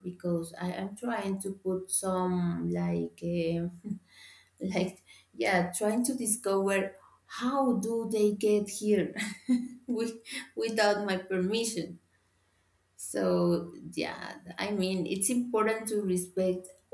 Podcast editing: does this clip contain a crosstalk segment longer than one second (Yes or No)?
No